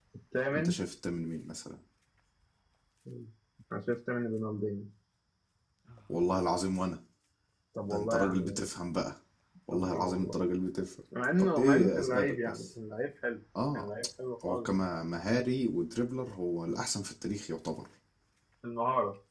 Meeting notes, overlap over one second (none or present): present